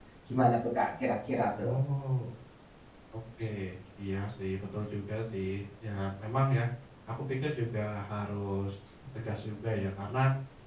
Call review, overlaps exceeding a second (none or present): none